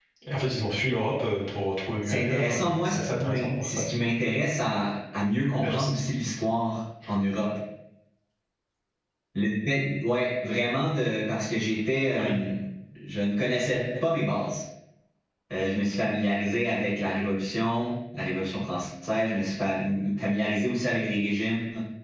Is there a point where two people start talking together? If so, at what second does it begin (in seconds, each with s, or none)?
2.0 s